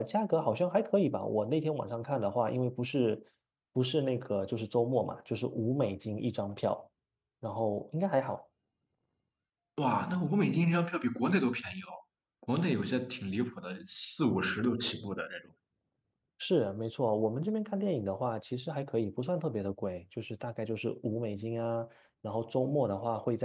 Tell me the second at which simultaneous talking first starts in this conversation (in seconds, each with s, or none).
none